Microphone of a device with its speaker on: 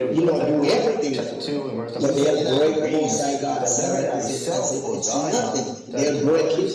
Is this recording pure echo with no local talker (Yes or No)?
No